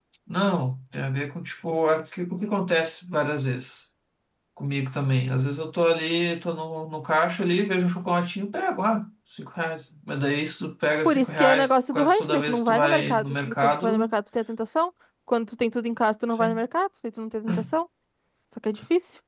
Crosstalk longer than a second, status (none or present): present